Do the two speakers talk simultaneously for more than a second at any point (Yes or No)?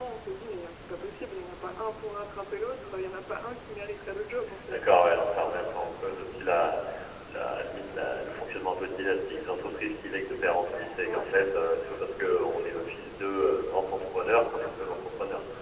No